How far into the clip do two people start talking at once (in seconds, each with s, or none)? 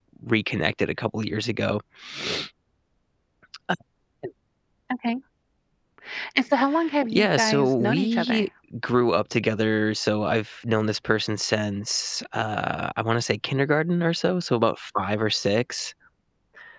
7.1 s